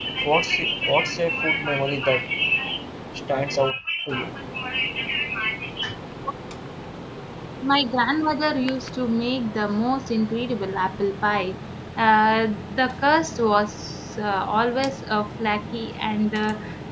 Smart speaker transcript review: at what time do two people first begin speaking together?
none

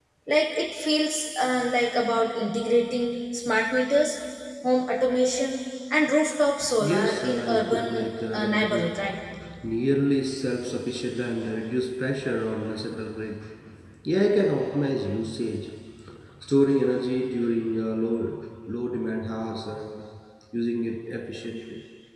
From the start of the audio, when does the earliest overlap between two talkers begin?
7 s

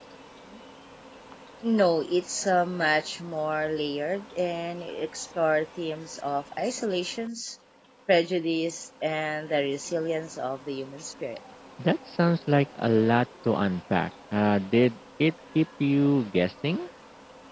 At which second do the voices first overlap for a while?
none

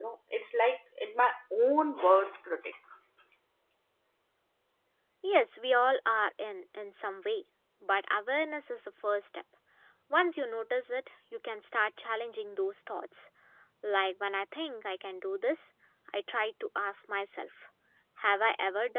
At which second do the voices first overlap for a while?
none

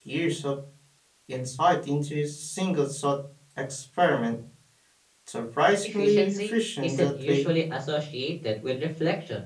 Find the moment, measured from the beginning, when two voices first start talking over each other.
6 s

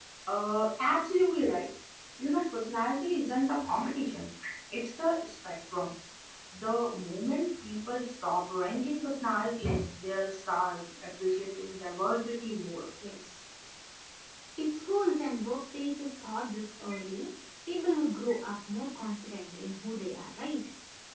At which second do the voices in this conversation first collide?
none

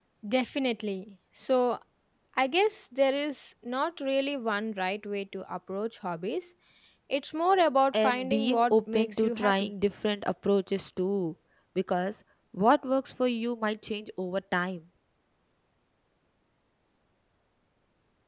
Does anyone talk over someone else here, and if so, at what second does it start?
8 s

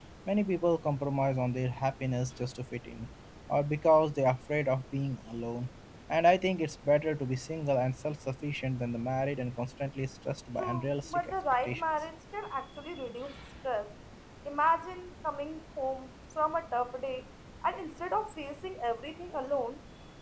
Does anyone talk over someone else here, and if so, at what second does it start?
11 s

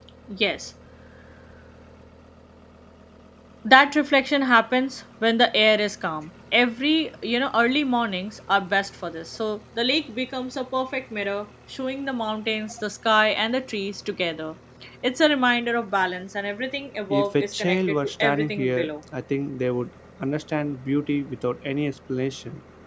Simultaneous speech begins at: 17 s

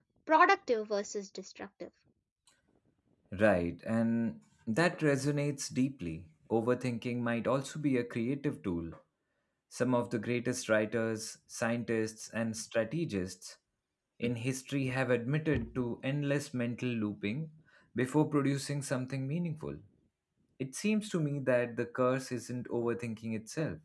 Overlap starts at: none

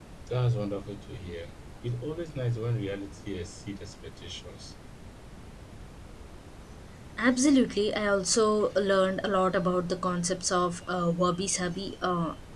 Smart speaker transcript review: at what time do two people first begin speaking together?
none

